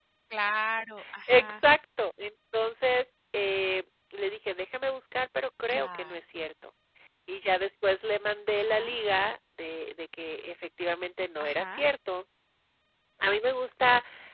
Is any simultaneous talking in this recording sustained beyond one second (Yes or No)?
No